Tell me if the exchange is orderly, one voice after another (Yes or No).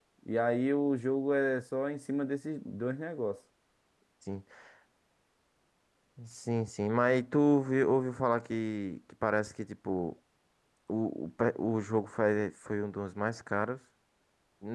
Yes